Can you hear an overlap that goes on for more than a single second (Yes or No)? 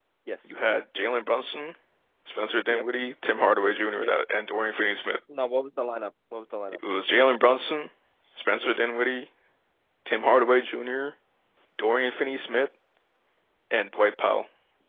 No